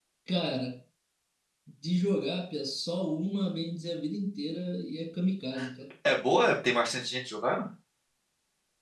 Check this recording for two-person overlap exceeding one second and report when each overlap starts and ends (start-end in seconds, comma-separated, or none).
none